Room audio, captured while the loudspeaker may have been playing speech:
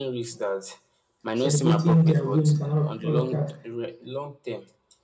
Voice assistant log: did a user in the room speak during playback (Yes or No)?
Yes